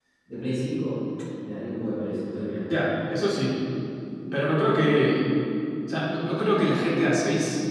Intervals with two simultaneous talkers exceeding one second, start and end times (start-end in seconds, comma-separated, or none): none